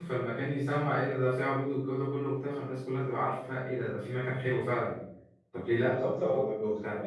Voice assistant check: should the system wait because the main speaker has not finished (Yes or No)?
No